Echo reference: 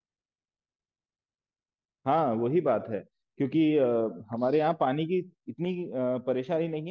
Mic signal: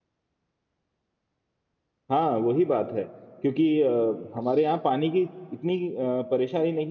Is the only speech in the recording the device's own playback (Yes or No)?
Yes